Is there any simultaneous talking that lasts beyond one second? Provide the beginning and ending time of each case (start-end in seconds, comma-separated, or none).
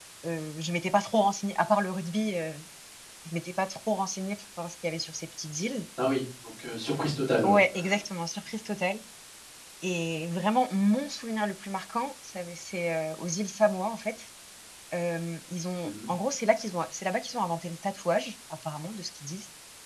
none